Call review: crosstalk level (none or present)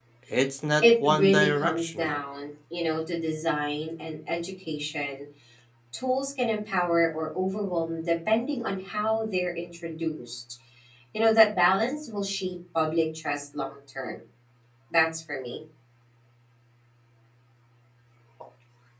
present